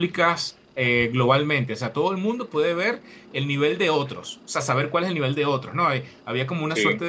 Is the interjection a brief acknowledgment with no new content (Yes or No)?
Yes